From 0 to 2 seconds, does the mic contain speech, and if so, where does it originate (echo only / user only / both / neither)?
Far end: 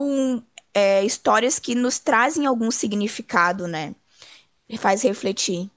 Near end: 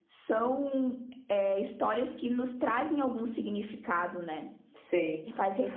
echo only